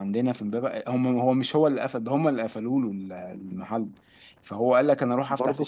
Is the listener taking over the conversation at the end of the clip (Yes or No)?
No